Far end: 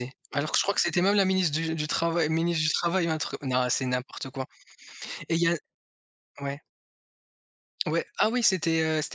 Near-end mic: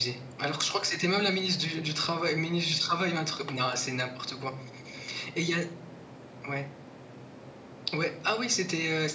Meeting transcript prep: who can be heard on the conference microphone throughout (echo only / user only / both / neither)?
echo only